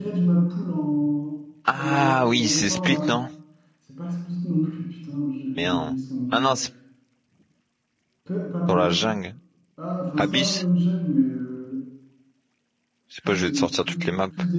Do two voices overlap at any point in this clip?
Yes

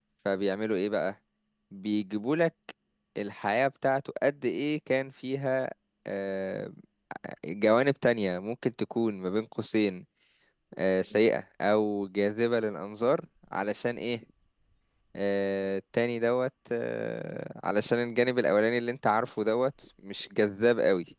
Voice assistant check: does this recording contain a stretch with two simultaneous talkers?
No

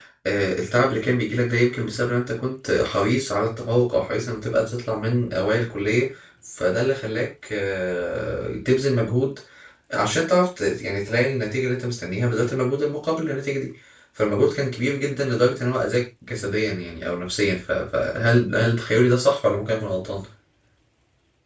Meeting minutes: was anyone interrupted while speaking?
No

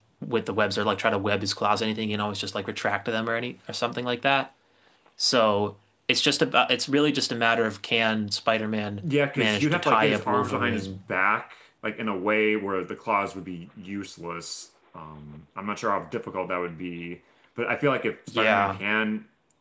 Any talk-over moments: Yes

